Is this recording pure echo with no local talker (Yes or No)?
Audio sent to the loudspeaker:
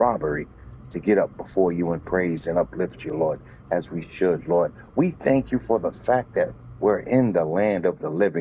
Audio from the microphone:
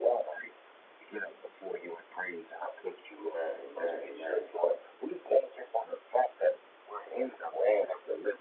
No